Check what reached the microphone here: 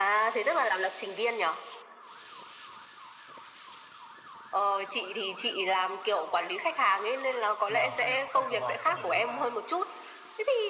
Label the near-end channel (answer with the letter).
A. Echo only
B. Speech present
B